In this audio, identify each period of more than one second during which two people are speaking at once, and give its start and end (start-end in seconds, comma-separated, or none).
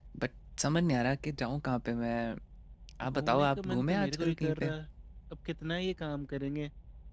3.0-4.7